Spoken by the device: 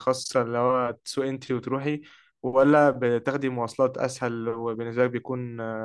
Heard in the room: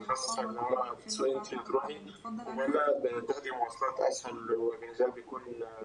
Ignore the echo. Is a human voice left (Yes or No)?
Yes